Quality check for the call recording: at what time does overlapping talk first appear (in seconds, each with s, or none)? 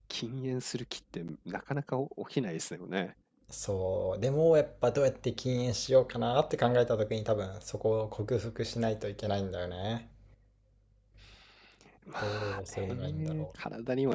12.2 s